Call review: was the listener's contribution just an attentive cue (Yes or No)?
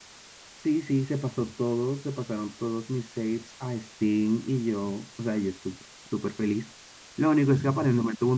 Yes